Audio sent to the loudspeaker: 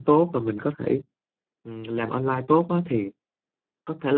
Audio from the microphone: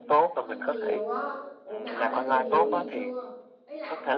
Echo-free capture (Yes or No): No